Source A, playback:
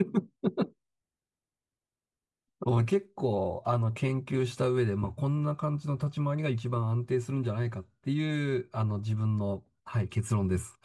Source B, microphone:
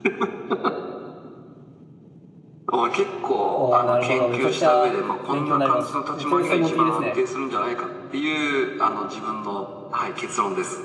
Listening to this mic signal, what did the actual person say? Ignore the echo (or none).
おー、なるほど。めちゃくちゃ勉強になります。めっちゃ専門的ですね。